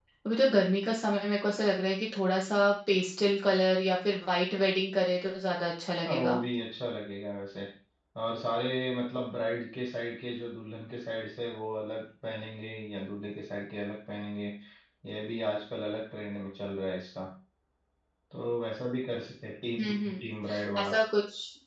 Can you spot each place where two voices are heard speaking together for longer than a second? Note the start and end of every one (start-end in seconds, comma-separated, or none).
none